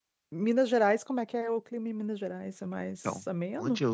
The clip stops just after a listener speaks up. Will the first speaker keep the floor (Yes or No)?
No